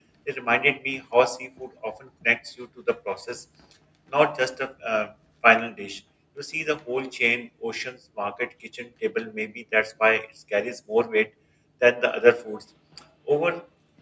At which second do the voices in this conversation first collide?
none

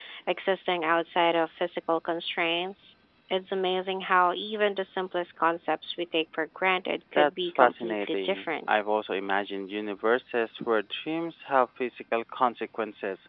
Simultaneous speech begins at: 7 s

